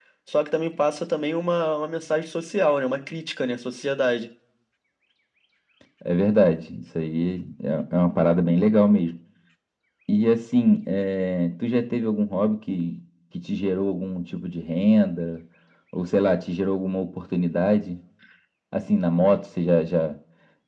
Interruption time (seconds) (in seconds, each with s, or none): none